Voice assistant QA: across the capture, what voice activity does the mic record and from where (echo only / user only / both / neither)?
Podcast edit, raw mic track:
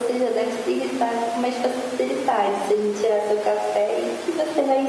echo only